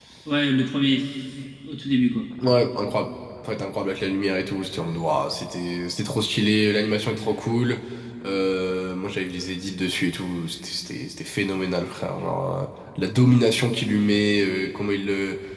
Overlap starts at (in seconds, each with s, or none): none